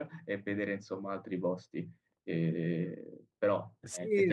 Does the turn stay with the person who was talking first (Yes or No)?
No